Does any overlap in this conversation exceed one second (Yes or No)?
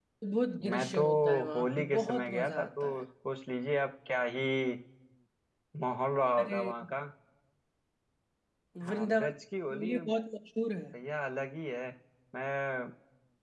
Yes